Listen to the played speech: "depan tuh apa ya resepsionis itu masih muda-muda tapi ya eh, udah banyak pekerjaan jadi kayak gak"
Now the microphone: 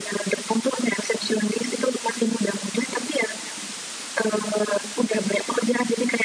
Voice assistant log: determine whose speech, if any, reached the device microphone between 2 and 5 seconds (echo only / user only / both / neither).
echo only